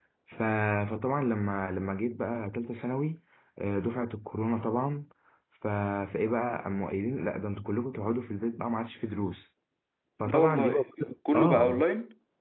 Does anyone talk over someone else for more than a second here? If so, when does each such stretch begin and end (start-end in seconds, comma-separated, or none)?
10.2-11.8